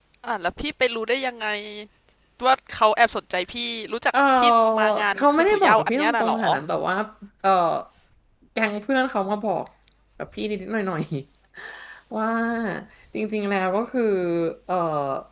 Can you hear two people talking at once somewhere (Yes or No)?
Yes